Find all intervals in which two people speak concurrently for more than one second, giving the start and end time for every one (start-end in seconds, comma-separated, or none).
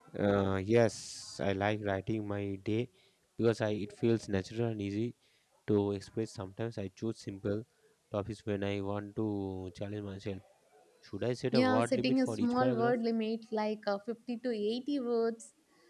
11.5-12.9